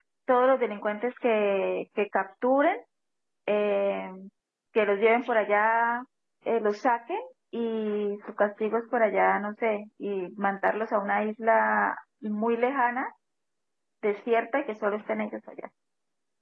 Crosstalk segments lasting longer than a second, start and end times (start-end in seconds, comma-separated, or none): none